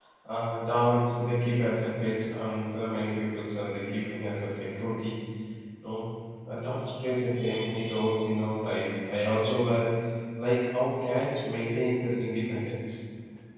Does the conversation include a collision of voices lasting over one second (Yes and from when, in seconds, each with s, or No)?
No